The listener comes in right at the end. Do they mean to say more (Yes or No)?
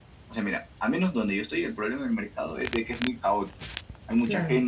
No